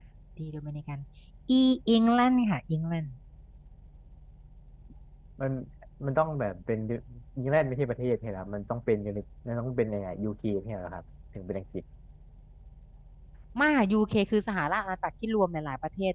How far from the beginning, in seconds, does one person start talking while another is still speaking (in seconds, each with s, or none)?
none